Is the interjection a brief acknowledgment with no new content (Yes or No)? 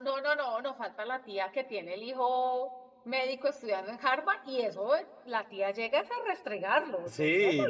No